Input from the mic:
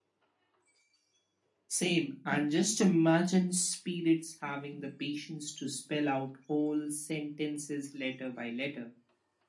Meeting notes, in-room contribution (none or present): none